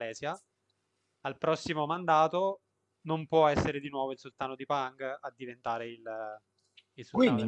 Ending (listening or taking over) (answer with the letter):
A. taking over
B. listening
A